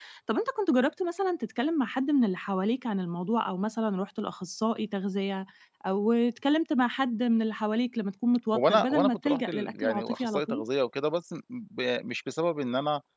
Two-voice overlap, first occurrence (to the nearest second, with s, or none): 9 s